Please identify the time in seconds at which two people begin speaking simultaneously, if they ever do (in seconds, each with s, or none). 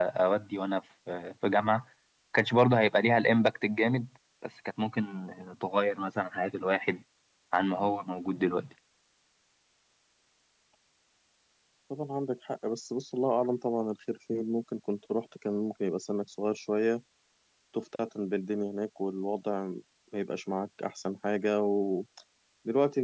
none